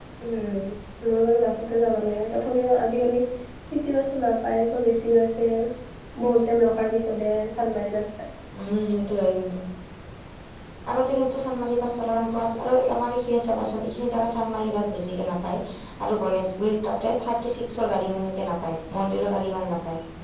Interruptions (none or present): none